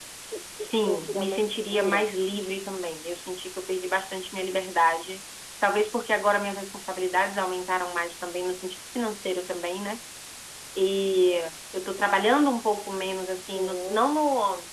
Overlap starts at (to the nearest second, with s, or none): 1 s